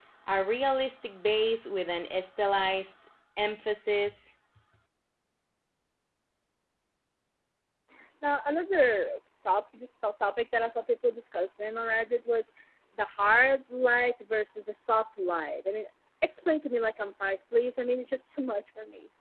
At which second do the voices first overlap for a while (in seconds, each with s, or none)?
none